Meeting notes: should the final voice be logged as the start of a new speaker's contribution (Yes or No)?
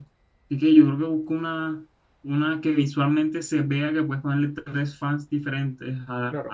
No